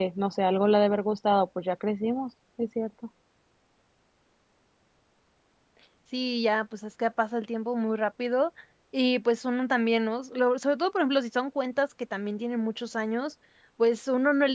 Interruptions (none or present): none